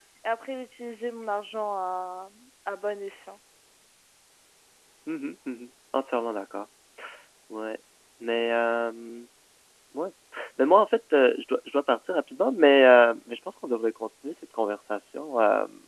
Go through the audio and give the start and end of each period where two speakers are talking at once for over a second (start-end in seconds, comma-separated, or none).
none